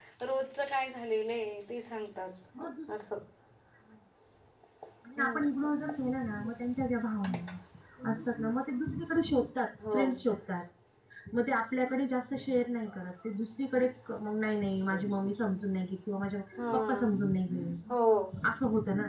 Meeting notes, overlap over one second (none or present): none